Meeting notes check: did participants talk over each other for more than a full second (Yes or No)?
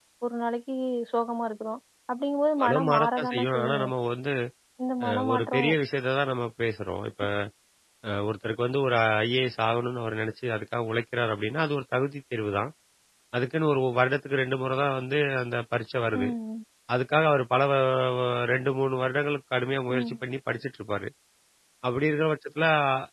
Yes